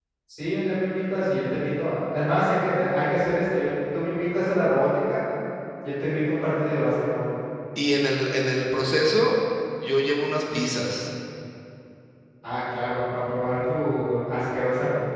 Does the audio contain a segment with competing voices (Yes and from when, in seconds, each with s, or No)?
No